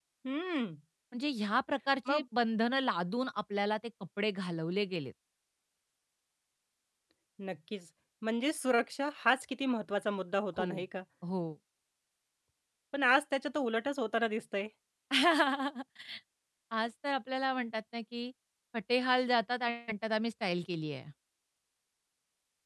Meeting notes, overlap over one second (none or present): none